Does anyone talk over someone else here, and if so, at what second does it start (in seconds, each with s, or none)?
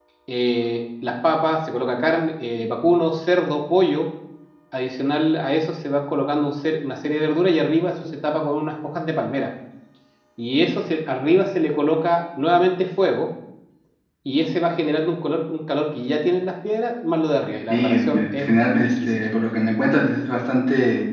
17.7 s